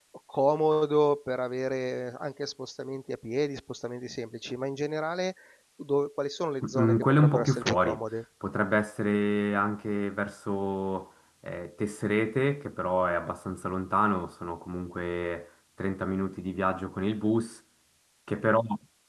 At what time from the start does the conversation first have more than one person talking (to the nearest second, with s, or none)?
7 s